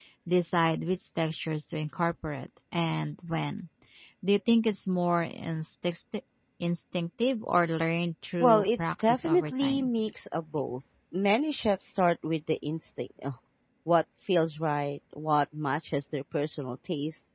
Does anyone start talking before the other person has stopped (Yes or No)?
Yes